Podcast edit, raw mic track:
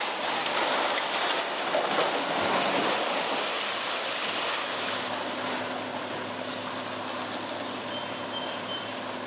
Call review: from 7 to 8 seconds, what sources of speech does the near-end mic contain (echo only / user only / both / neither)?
neither